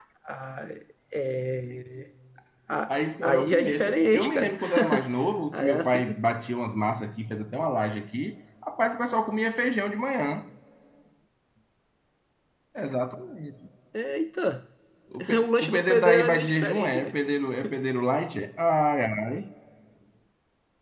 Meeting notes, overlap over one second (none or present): present